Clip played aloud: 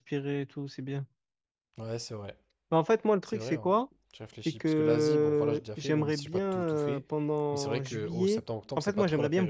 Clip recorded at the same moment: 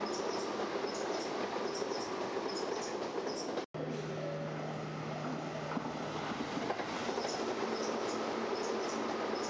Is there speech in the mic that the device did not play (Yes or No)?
No